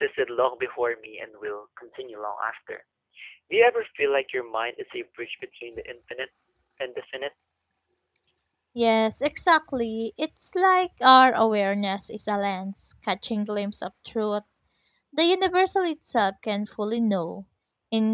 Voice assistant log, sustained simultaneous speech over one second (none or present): none